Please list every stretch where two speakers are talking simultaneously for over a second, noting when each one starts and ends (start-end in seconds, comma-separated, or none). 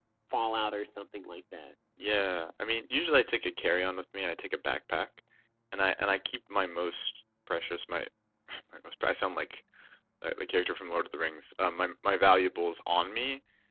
none